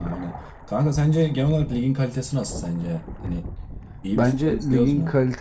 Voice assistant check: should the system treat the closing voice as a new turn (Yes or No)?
Yes